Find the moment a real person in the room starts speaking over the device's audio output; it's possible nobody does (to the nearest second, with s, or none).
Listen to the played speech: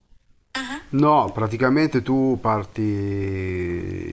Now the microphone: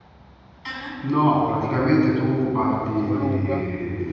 3 s